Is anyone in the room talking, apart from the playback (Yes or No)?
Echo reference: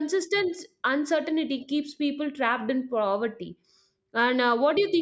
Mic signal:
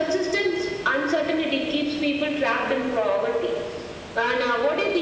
No